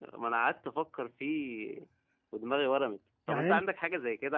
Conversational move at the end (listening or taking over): listening